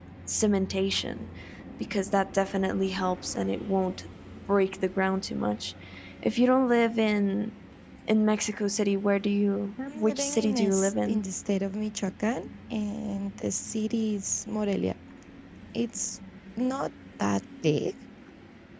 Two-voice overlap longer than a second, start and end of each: 9.9-11.2

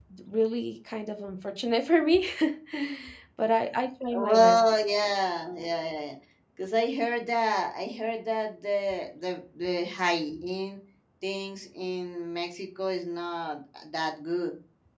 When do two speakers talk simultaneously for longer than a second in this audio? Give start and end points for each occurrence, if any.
none

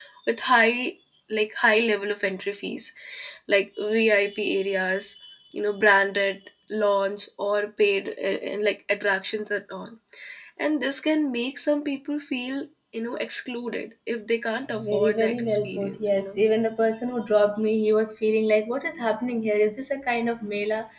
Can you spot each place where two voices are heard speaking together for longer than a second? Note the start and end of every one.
14.9-16.4

